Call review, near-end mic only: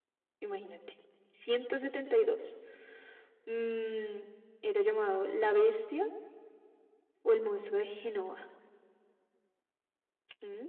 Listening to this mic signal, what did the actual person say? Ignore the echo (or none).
none